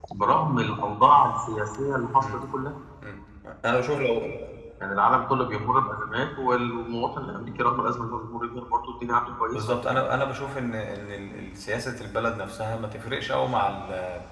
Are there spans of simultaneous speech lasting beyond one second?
No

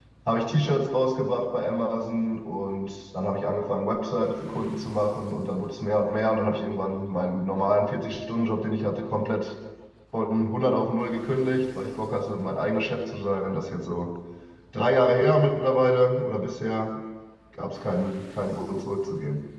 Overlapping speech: No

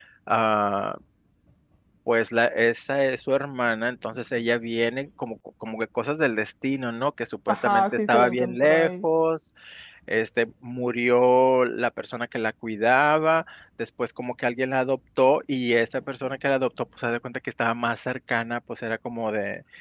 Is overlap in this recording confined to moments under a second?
No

